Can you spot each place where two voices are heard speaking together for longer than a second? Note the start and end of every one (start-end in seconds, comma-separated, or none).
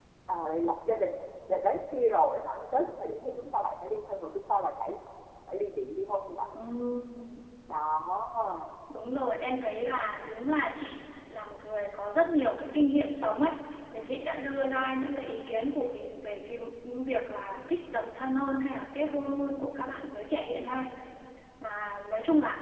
none